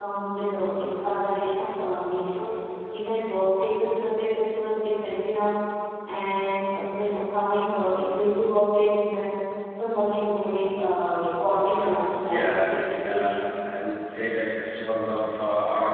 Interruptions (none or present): present